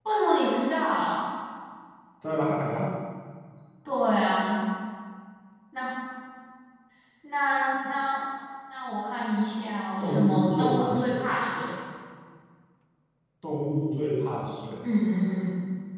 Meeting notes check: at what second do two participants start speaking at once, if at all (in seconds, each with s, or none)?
10.0 s